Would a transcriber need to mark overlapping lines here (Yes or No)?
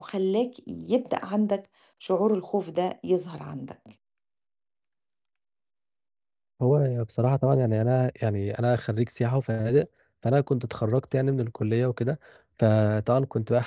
No